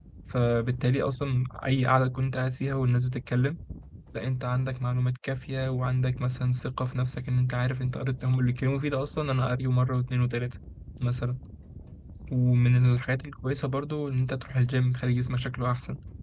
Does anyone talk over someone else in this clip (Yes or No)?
No